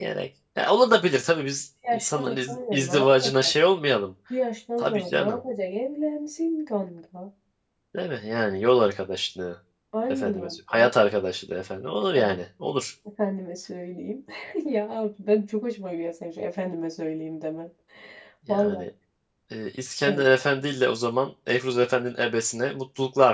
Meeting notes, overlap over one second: present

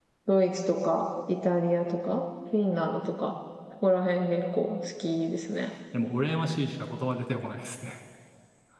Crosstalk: none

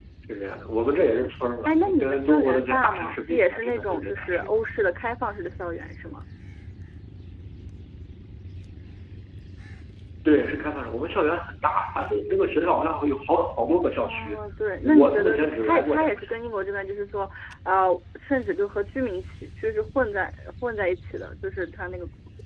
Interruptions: present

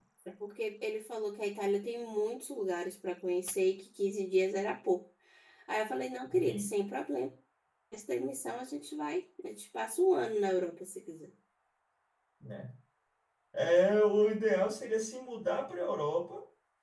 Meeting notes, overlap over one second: none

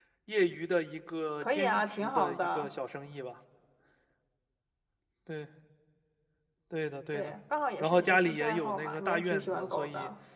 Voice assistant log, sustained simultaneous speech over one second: present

